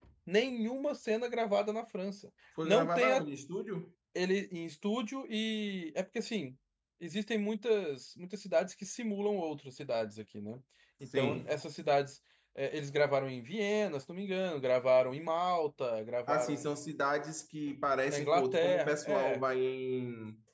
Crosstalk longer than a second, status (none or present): present